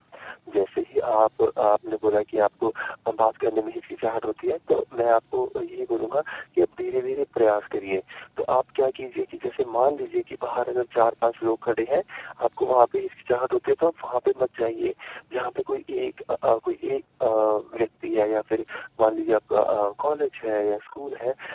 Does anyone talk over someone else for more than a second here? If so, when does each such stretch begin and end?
none

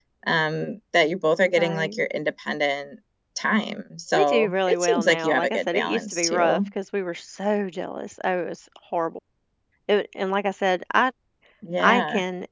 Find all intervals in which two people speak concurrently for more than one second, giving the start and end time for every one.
4.1-6.6

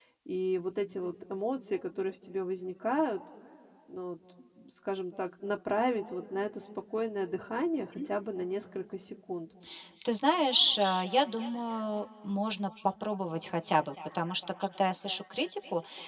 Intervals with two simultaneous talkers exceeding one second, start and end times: none

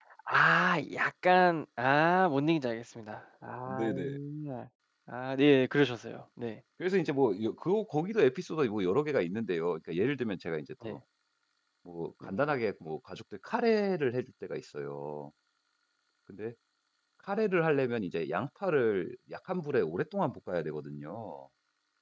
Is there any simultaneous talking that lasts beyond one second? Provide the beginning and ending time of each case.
none

